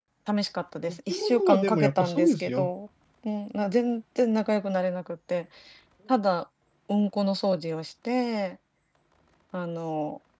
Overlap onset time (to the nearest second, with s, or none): 1 s